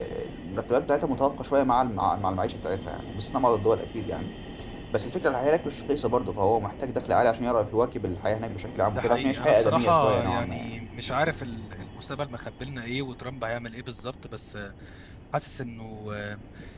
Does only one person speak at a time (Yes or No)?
No